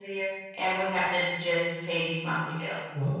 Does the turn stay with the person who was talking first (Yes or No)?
No